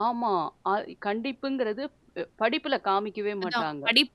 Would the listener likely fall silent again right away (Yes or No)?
No